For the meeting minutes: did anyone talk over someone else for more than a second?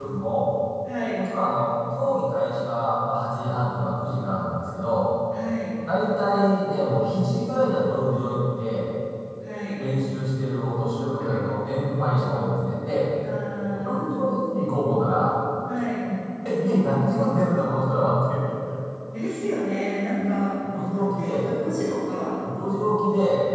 Yes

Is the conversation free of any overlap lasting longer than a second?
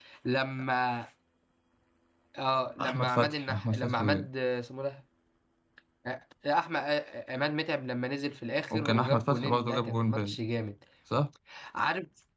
No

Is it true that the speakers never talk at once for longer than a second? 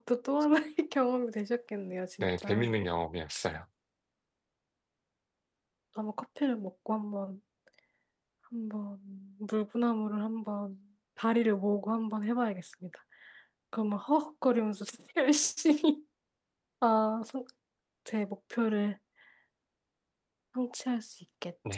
Yes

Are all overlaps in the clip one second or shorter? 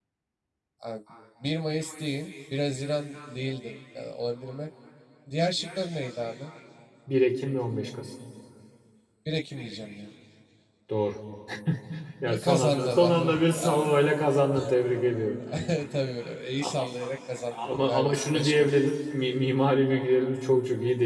No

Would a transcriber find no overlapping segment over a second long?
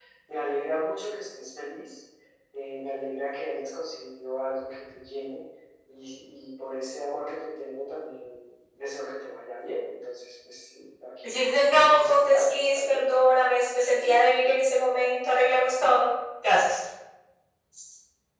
No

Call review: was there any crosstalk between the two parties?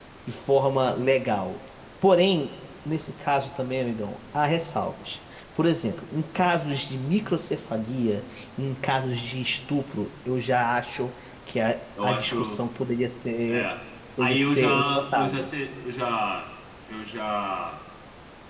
Yes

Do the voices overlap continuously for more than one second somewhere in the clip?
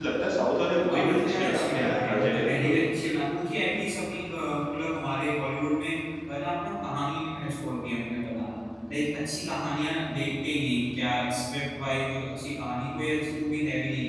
Yes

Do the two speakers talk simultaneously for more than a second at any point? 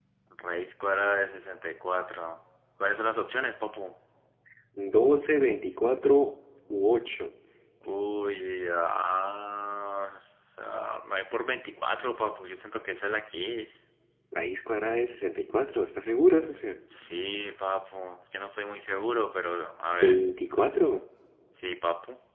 No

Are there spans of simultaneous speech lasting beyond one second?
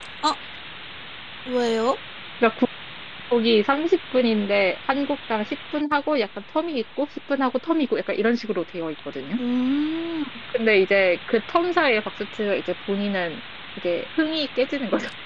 No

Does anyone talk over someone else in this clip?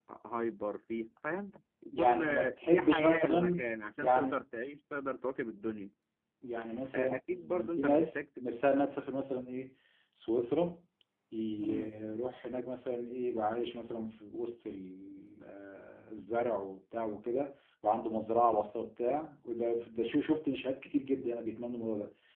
Yes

